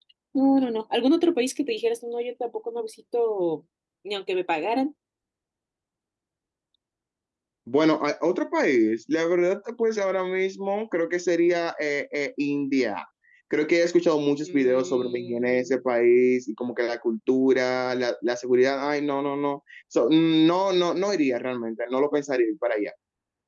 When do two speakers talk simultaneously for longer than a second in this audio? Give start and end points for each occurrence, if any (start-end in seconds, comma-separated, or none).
14.4-15.7